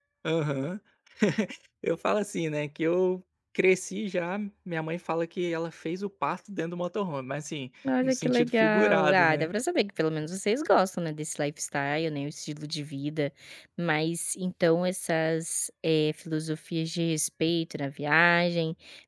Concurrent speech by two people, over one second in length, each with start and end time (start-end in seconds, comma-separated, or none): 8.0-9.5